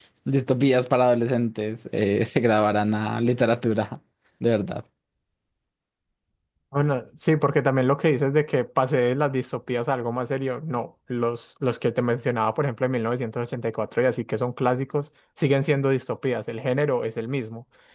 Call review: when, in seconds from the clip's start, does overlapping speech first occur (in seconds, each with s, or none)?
none